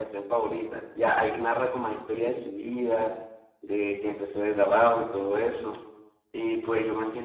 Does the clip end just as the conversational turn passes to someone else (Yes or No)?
No